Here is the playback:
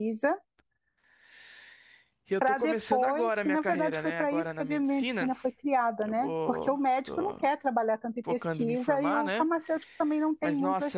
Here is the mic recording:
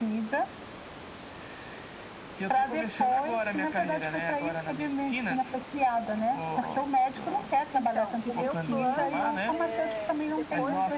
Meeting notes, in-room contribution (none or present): present